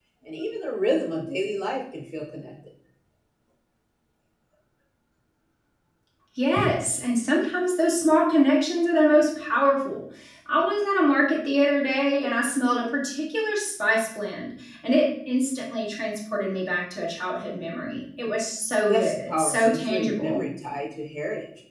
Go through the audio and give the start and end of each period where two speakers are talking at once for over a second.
18.9-20.4

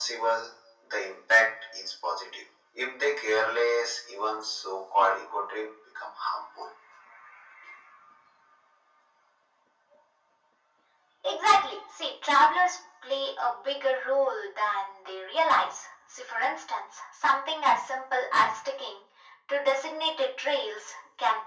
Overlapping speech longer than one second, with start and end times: none

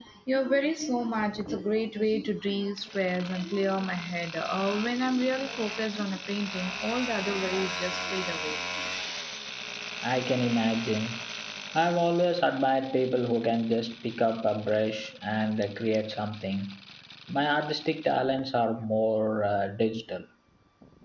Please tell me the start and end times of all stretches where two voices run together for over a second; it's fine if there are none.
none

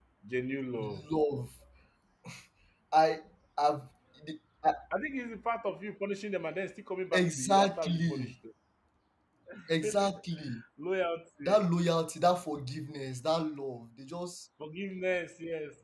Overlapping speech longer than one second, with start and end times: 7.1-8.4

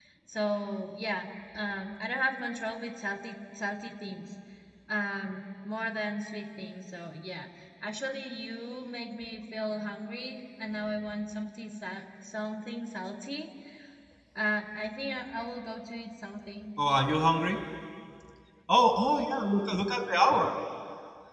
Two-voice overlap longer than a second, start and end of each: none

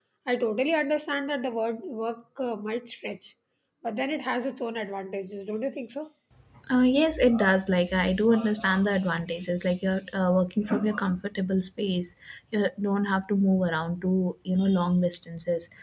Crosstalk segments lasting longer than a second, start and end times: none

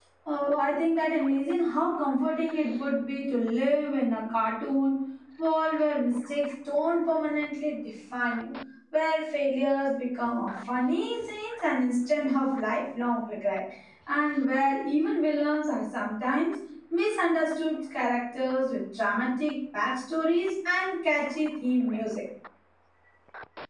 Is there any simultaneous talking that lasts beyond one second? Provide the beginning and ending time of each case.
none

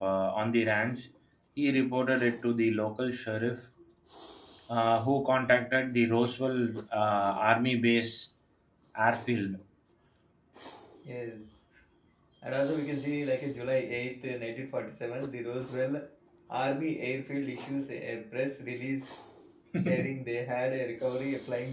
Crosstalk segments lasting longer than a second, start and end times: none

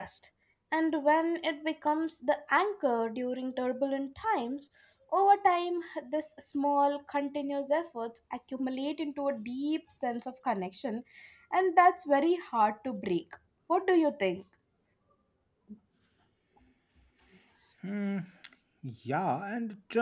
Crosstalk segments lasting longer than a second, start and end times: none

